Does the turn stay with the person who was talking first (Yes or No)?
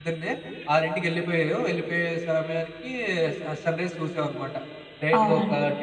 Yes